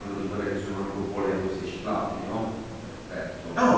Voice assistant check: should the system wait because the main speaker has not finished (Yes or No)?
No